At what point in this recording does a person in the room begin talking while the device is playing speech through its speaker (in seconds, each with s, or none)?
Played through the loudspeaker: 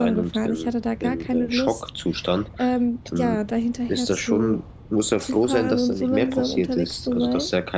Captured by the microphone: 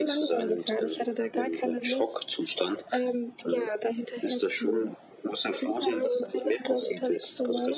none